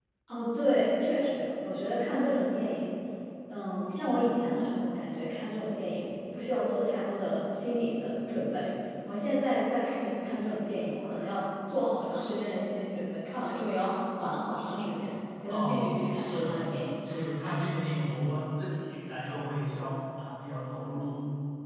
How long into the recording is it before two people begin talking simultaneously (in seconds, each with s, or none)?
15.5 s